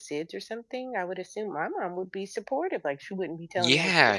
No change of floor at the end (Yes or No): No